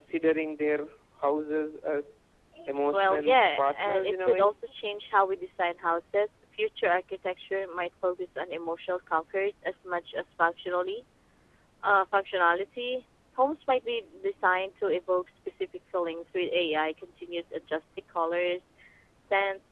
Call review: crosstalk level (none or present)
present